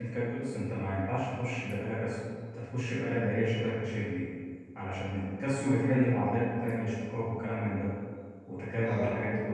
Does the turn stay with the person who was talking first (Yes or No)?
Yes